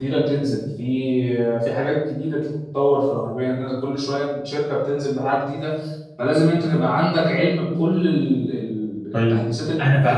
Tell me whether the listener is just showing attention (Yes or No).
No